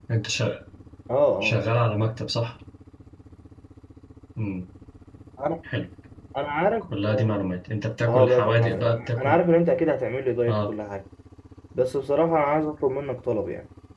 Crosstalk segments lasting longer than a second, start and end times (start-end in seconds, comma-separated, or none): 8.0-9.4